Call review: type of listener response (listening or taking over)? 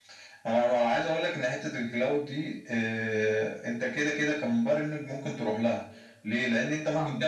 listening